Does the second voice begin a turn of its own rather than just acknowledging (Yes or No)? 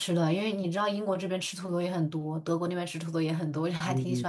Yes